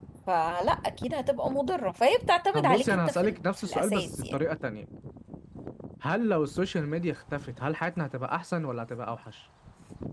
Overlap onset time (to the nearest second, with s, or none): 3 s